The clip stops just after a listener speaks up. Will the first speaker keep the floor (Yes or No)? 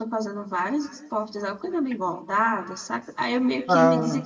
Yes